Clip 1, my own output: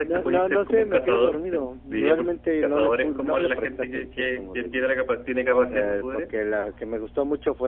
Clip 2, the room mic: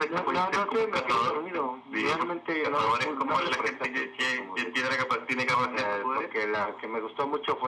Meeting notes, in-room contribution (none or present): none